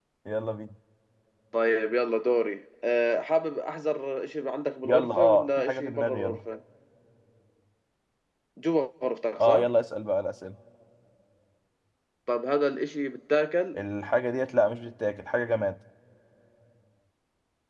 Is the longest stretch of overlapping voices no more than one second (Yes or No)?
No